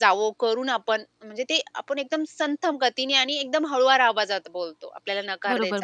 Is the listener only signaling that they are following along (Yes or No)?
No